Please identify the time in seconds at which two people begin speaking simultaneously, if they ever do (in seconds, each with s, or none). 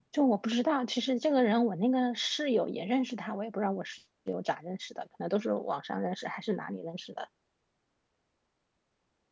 none